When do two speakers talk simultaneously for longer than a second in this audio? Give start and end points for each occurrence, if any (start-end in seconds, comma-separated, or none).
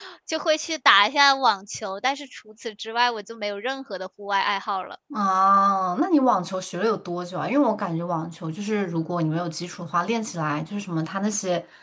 none